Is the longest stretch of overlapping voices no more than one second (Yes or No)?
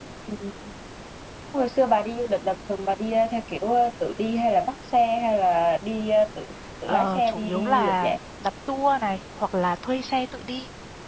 No